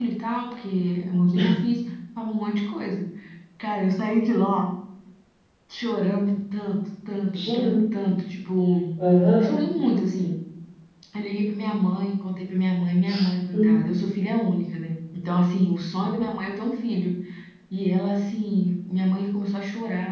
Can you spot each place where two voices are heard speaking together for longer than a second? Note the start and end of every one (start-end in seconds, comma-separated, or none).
none